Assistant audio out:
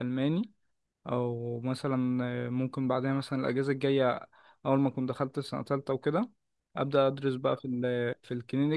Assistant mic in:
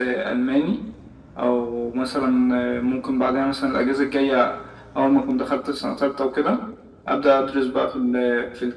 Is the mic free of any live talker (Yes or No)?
Yes